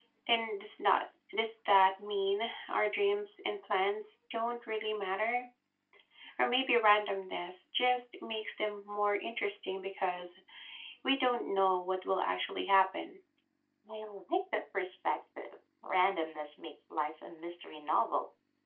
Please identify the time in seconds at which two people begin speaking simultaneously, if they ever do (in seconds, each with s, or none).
none